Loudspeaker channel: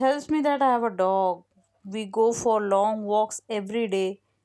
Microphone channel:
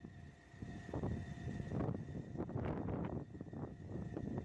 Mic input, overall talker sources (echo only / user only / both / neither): neither